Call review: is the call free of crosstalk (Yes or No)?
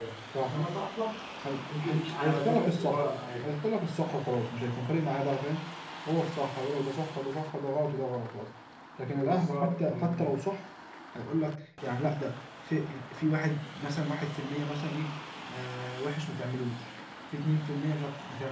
No